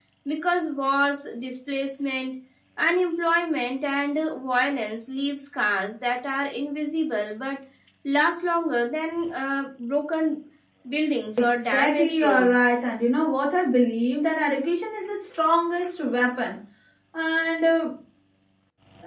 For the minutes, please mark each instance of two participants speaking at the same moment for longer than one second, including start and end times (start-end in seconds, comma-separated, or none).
11.4-12.6